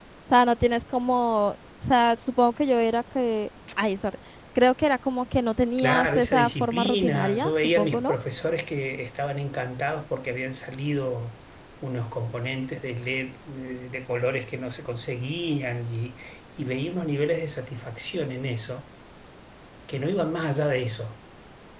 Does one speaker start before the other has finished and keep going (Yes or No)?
Yes